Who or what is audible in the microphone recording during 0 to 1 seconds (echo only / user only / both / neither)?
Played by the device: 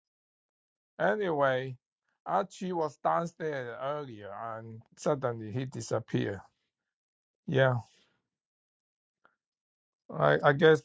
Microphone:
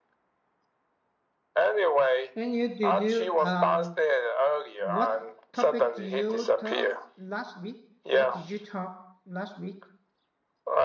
neither